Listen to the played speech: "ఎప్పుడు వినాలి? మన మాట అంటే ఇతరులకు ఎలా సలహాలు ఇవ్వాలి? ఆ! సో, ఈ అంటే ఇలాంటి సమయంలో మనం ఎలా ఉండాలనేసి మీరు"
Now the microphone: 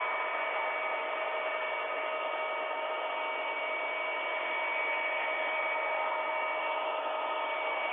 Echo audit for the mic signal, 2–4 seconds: neither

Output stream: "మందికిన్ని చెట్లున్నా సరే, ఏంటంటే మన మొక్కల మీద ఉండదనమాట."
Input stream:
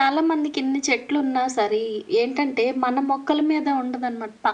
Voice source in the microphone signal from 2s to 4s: echo only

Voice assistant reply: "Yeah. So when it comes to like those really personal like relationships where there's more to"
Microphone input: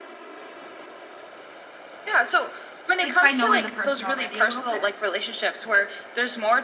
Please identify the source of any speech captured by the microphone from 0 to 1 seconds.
neither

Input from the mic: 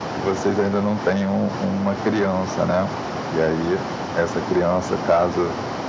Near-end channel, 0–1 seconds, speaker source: echo only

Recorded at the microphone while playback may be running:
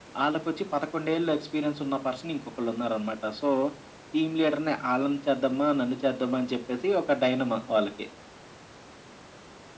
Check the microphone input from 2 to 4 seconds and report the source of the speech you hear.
echo only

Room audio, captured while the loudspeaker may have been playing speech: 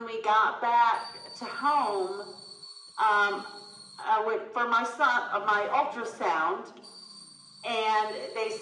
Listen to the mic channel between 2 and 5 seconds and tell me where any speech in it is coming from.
echo only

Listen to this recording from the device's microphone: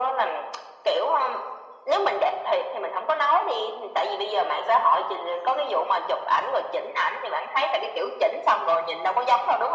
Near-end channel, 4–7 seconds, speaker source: echo only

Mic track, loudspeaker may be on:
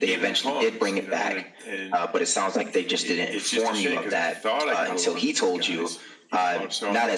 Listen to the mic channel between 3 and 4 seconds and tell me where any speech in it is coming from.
echo only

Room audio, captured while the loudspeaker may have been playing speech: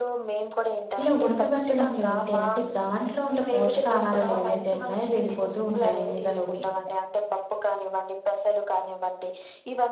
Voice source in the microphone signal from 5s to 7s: both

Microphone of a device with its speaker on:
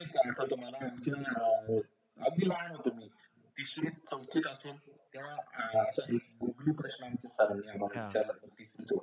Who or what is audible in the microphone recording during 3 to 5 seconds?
echo only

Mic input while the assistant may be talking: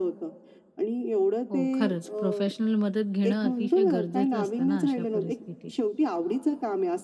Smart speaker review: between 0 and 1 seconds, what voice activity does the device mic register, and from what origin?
echo only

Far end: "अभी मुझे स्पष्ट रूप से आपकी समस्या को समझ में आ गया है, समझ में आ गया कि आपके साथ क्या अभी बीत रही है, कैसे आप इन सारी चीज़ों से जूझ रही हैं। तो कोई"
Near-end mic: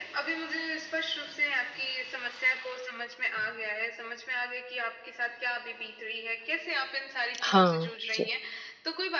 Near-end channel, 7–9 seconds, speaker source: both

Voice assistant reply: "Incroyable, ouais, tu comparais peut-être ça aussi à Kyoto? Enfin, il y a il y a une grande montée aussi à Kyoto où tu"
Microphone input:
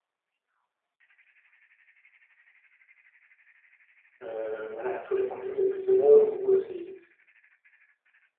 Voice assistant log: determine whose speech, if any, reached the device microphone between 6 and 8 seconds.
user only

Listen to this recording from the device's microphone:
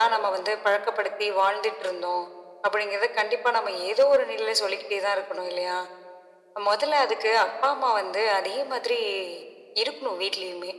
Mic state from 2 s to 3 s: echo only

